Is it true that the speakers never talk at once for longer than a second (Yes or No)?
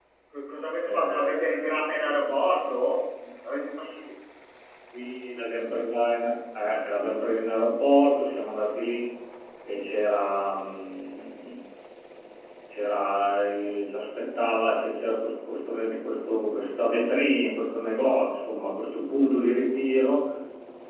No